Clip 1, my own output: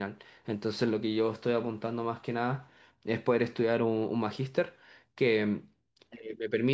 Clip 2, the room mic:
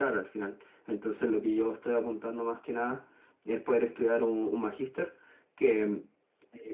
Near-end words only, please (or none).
none